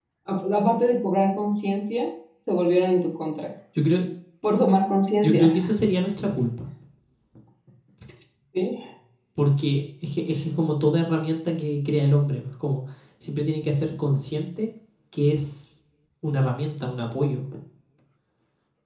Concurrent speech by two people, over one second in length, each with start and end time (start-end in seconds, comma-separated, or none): none